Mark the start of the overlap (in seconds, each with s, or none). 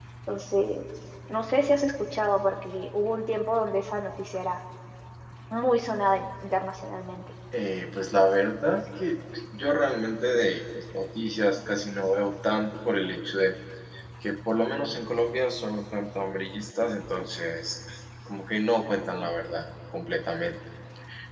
none